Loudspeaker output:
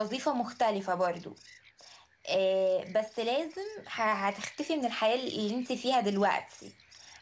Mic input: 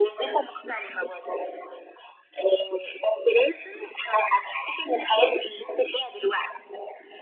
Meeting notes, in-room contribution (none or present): none